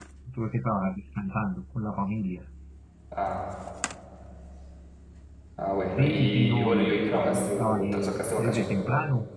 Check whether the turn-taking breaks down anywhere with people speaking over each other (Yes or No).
Yes